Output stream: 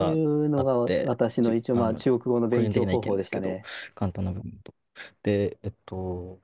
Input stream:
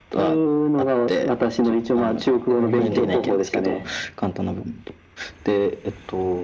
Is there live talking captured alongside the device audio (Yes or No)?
Yes